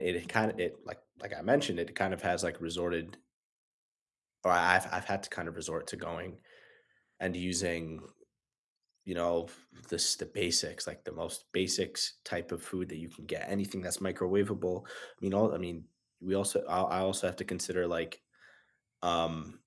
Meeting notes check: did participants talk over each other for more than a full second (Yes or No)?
No